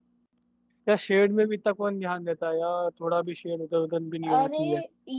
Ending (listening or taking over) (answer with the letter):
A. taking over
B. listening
A